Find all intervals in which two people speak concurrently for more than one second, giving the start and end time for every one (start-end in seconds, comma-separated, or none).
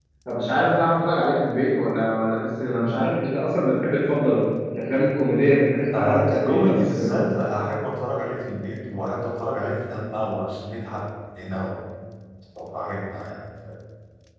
5.9-7.2